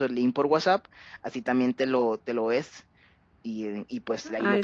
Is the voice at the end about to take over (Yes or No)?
Yes